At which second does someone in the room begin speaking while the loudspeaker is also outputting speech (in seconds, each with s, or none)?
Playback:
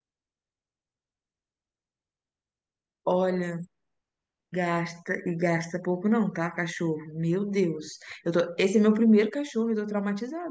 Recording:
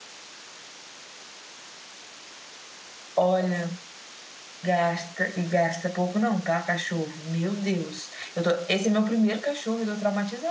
none